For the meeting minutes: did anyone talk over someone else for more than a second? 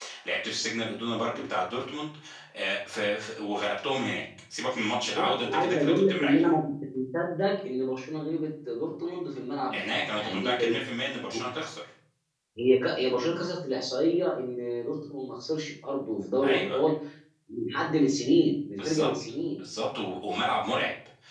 Yes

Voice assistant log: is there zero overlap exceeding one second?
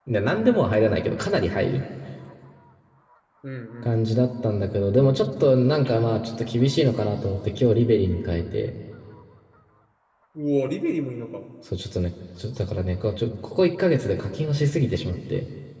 Yes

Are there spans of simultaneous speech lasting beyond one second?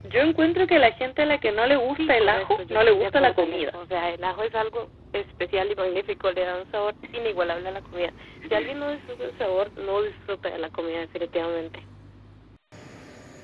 Yes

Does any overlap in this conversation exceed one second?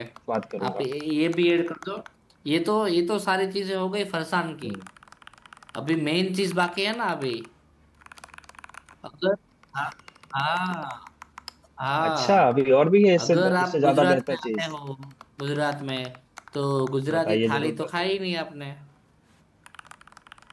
Yes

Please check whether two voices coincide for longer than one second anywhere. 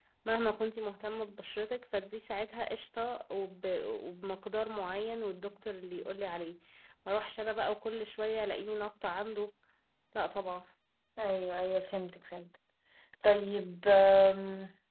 No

